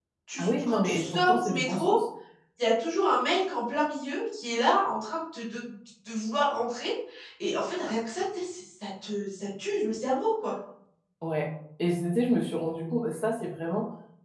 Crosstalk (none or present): present